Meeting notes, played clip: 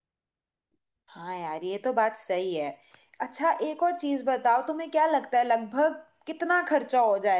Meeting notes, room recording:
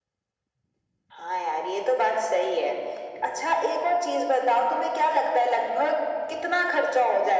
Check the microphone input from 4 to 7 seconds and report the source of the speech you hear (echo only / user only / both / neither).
echo only